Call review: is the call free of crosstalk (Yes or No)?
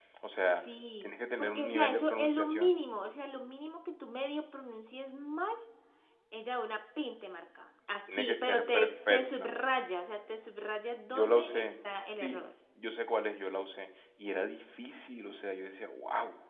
No